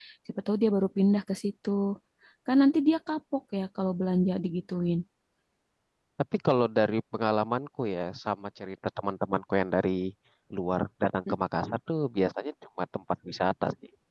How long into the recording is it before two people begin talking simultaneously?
none

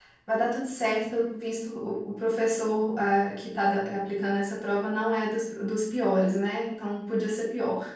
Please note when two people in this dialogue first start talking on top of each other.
none

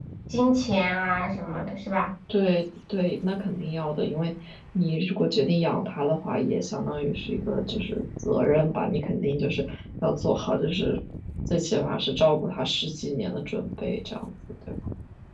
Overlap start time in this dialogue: none

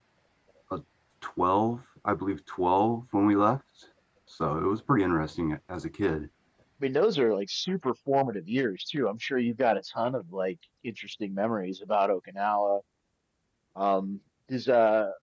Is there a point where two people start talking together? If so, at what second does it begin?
none

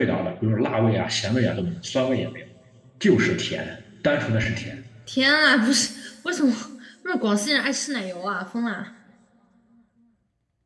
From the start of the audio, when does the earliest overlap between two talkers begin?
none

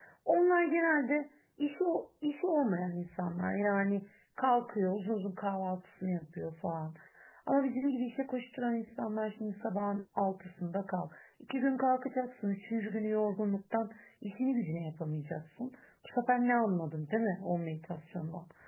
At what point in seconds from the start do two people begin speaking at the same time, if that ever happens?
none

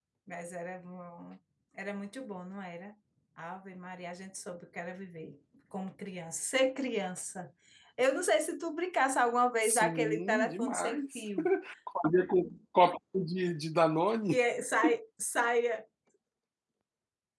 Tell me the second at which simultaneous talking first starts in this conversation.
10 s

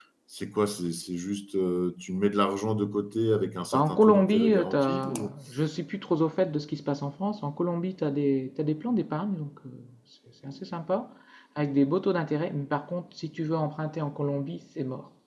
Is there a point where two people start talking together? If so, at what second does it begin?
4 s

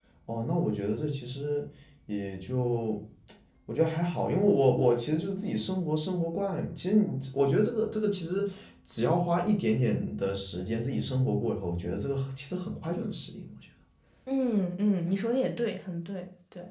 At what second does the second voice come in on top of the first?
none

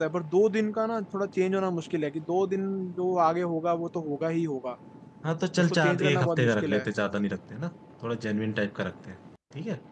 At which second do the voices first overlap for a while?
6 s

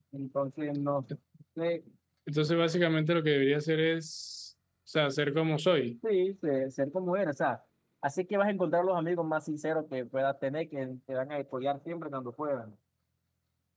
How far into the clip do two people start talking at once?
none

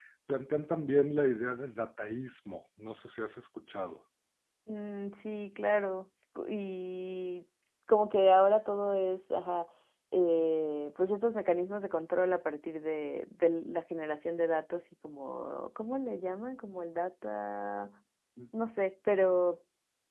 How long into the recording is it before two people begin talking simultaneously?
none

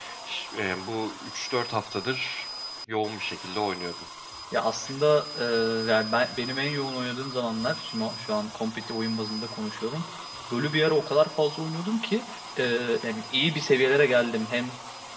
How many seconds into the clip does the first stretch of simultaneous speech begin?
none

